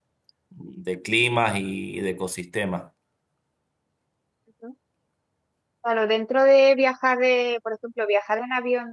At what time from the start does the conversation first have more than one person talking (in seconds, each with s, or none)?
none